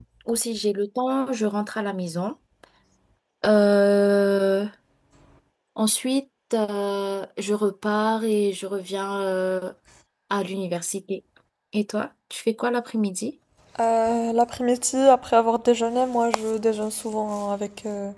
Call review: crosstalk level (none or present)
none